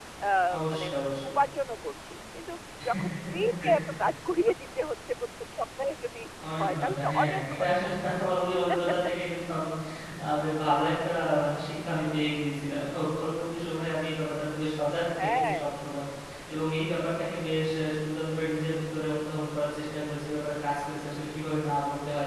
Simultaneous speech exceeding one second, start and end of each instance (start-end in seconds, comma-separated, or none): 6.6-7.9